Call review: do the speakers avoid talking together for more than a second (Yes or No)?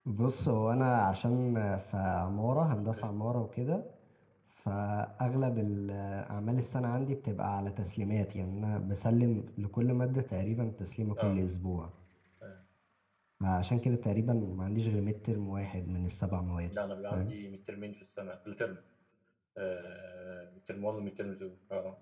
Yes